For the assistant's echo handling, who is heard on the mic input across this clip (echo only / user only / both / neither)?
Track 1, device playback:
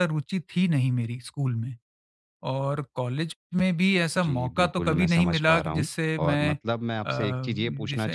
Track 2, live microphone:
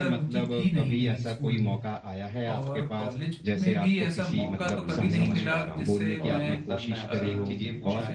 both